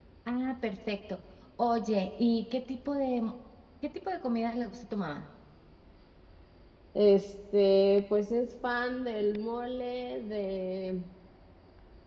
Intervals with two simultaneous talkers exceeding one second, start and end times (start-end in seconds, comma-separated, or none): none